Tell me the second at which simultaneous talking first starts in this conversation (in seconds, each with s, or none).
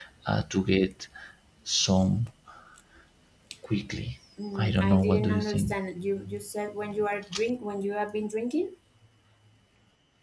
4.4 s